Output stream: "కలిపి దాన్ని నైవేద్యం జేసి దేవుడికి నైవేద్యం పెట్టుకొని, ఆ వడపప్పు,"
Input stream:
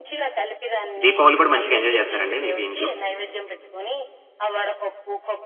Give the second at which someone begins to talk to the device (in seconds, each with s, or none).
1.0 s